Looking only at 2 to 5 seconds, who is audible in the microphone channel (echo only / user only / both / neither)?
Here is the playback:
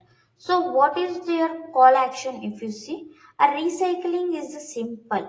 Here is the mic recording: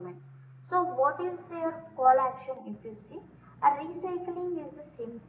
echo only